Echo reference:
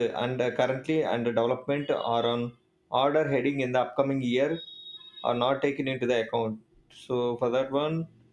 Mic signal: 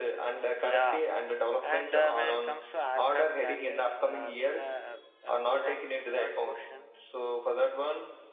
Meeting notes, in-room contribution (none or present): present